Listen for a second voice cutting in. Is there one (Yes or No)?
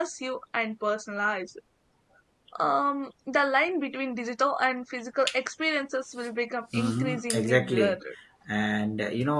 Yes